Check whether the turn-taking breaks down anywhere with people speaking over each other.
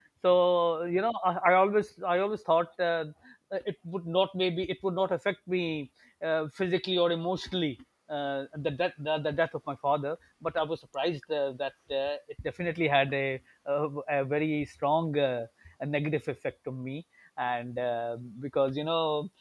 No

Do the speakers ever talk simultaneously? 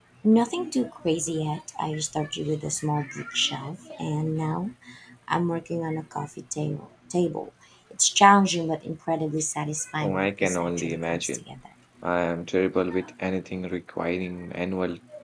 Yes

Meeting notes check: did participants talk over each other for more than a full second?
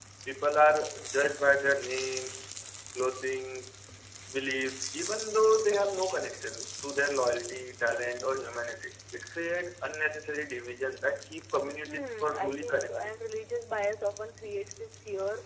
Yes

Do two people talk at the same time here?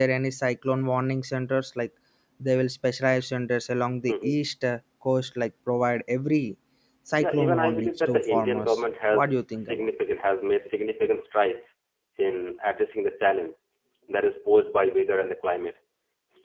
Yes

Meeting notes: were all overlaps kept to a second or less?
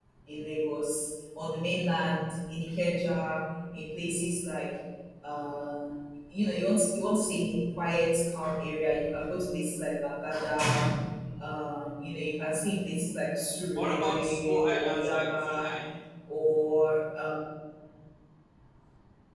No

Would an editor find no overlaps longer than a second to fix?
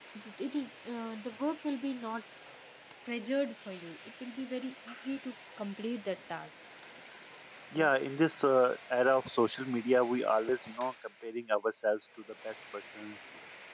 Yes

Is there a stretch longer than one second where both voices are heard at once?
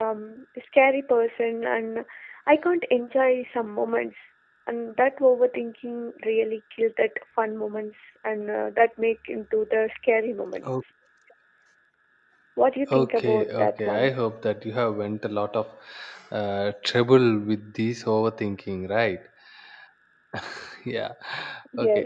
Yes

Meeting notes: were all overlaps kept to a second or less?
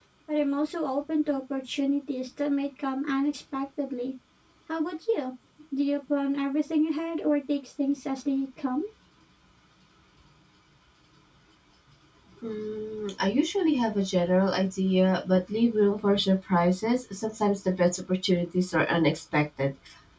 Yes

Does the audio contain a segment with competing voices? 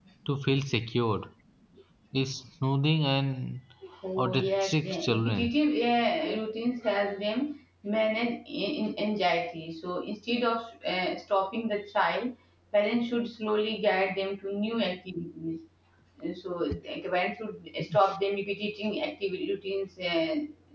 Yes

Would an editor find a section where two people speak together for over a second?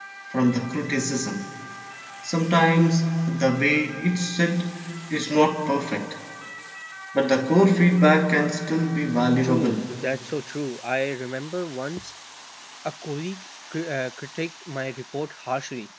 No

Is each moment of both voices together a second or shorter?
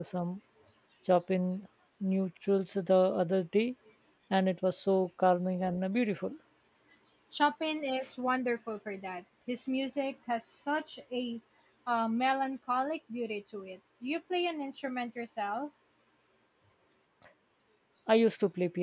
Yes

